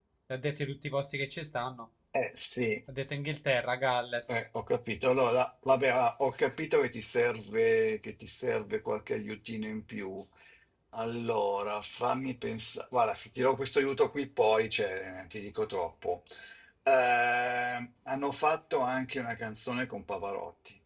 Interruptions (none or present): none